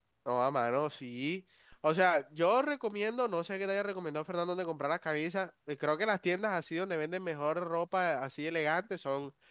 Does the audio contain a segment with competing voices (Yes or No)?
No